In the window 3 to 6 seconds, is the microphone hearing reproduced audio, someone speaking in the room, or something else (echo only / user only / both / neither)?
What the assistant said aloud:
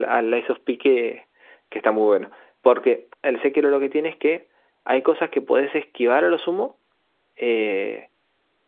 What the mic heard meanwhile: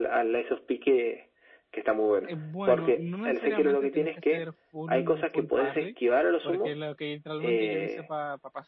both